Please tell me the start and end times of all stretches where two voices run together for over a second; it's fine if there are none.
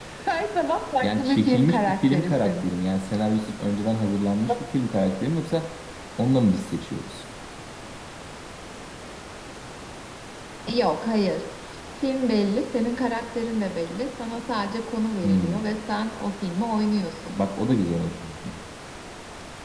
1.0-2.5

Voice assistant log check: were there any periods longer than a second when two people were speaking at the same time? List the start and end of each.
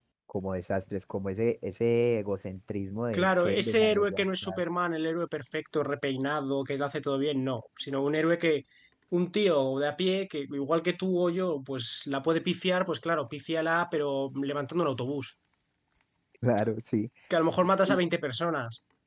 3.1-4.6

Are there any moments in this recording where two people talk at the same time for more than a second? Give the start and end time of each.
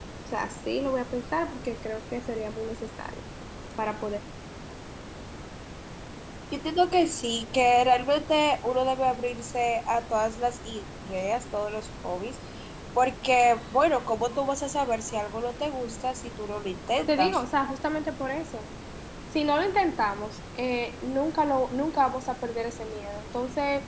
none

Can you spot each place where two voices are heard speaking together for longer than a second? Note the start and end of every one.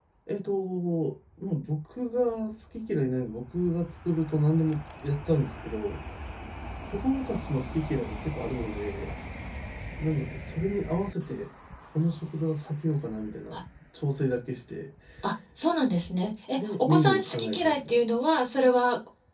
16.6-18.0

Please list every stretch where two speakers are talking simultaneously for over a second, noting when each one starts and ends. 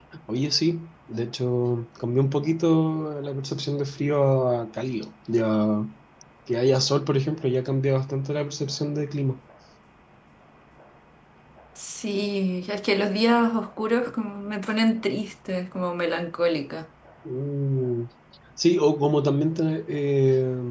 none

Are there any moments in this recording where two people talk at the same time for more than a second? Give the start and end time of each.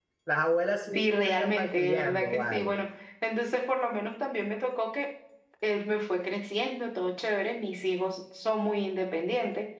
0.9-2.7

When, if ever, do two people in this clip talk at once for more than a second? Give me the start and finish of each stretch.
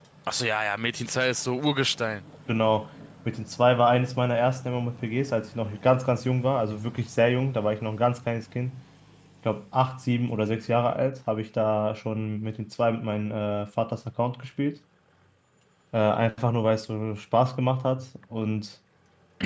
none

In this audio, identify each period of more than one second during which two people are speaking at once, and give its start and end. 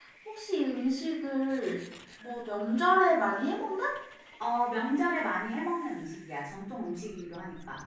none

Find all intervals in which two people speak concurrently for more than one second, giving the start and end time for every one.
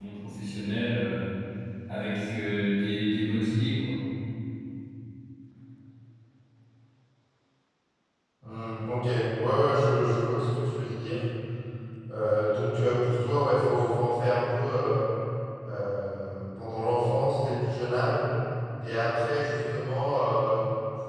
none

